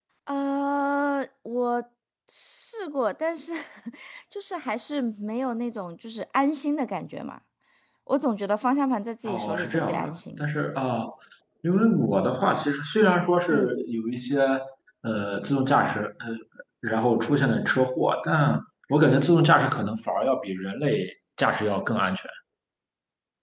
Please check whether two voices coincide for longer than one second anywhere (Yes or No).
Yes